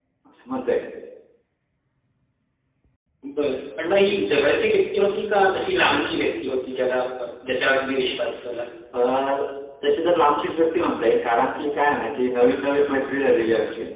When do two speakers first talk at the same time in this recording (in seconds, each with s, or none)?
none